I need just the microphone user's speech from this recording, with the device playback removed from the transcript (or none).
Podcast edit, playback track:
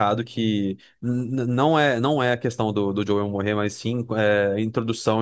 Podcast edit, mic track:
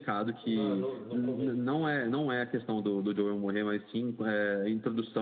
No, no, no começo, sim.